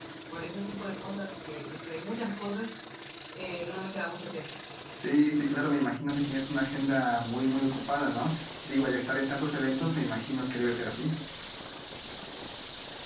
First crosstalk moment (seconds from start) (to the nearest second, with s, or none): none